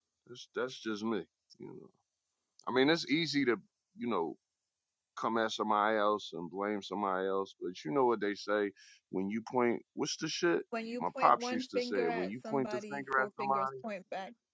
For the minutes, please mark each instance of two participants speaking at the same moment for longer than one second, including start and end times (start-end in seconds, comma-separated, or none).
11.0-13.7